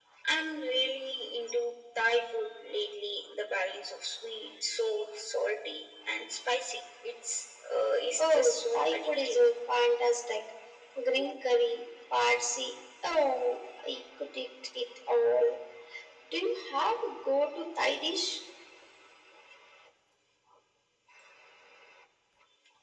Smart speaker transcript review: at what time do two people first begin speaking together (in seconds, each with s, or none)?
8.2 s